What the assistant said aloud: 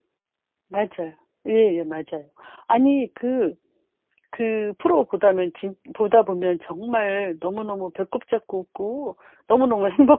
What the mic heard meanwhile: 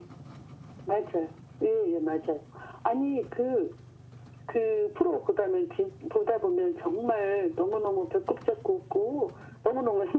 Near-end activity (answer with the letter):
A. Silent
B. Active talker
A